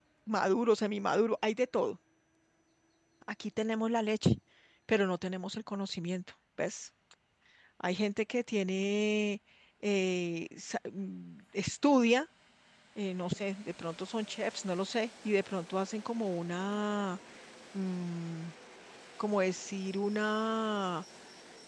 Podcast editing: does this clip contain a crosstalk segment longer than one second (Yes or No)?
No